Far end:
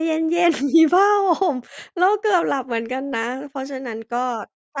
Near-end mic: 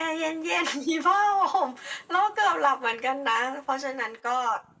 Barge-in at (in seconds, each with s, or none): none